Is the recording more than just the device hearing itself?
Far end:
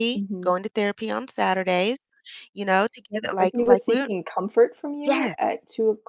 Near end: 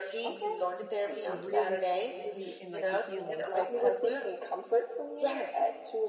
Yes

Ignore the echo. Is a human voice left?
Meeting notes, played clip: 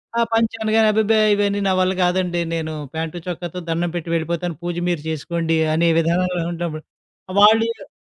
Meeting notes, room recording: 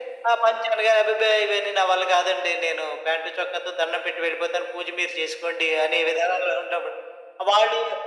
No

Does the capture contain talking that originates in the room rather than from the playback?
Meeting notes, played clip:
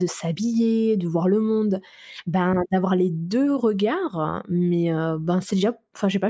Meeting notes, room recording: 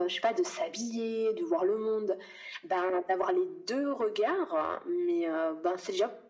No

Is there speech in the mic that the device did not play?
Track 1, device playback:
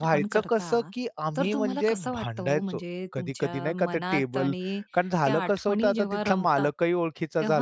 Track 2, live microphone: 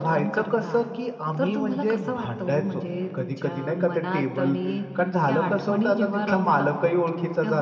No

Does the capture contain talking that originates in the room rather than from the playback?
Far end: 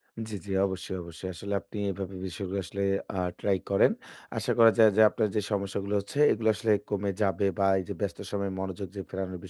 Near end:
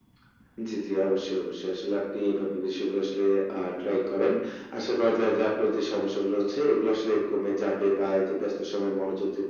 No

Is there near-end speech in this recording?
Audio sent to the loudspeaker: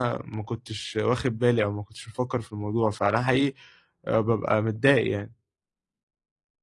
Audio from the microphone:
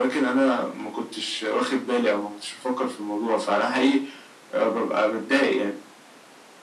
No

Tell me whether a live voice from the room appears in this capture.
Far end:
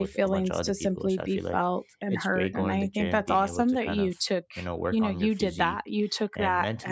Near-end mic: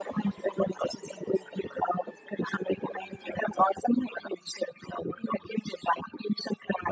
No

